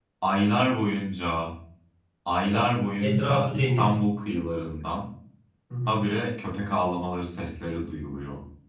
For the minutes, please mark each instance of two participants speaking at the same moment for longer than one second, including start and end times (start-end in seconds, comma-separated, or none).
2.5-3.9